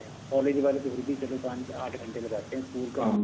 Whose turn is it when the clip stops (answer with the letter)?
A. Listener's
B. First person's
A